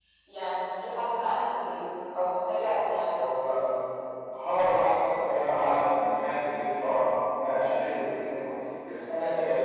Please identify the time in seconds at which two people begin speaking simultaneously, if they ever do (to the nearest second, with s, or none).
none